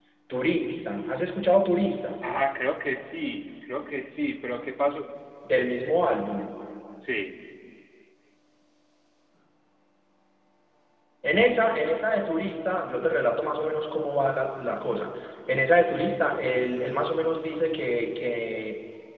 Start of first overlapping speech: none

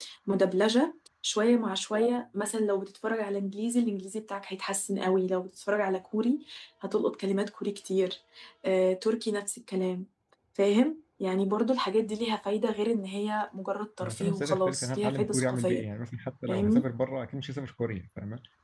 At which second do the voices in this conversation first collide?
14.0 s

